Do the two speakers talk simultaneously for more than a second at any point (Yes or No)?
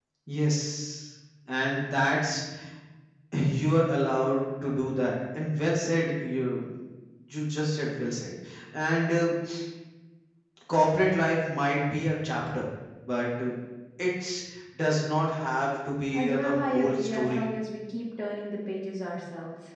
Yes